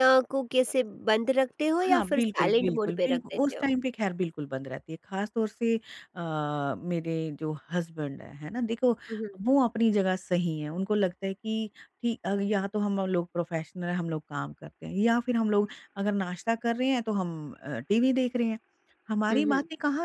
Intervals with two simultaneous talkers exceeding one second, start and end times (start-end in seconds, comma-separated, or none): 1.8-3.6